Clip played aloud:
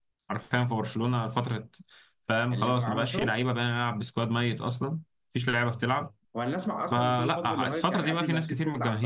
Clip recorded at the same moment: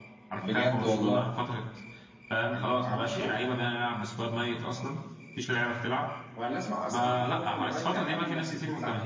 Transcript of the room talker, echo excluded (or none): بجد والله